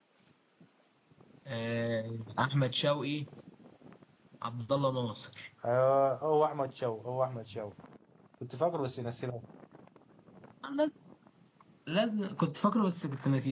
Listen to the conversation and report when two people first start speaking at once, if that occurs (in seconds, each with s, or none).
none